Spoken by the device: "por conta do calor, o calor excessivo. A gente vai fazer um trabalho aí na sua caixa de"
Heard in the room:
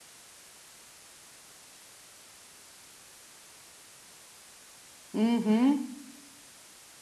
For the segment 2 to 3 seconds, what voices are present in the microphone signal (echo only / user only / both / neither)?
neither